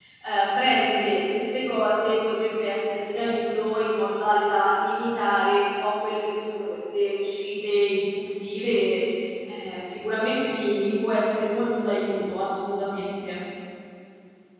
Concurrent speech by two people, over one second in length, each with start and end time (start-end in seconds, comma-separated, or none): none